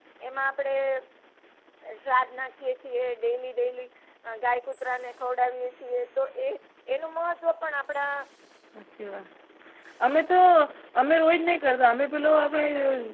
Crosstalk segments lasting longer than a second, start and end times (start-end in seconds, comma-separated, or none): none